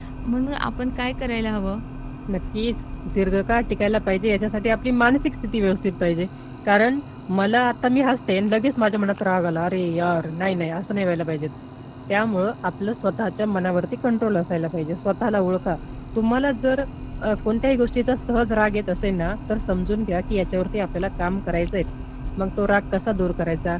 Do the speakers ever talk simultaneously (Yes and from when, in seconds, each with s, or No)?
No